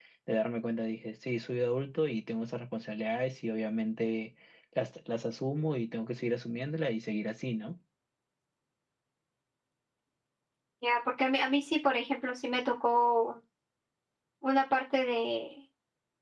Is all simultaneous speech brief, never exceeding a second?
Yes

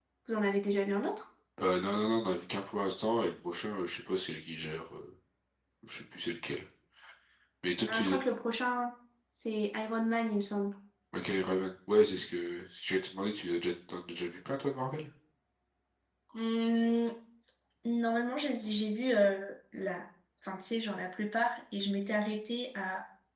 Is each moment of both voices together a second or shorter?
Yes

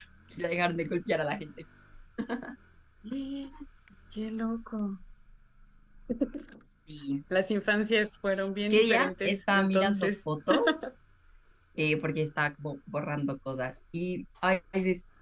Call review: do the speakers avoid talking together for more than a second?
No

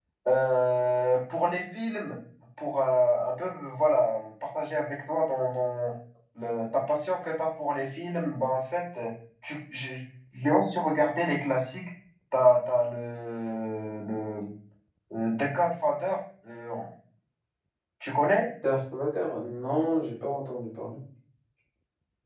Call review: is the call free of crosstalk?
Yes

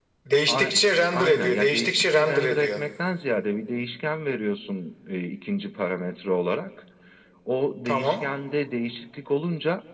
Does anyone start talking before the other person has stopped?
Yes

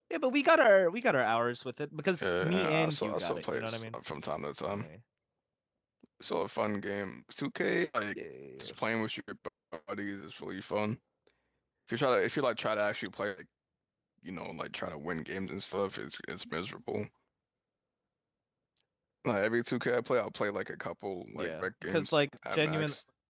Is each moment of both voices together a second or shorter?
No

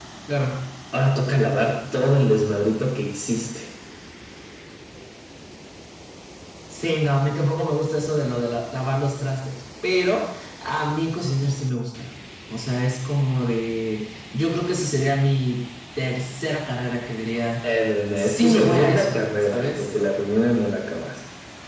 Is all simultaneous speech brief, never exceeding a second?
No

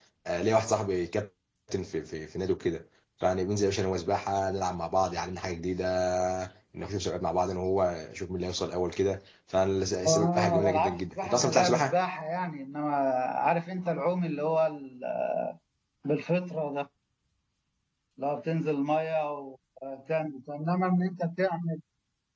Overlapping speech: Yes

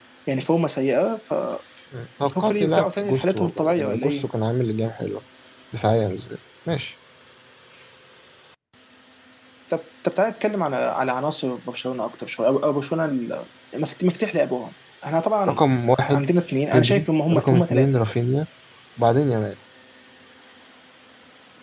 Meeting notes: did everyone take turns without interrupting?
No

